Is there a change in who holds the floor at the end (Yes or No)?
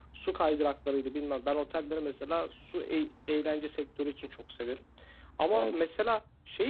No